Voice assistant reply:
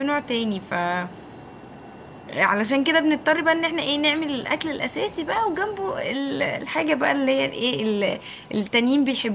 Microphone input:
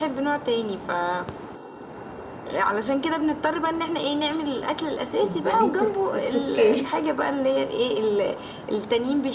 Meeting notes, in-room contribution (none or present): present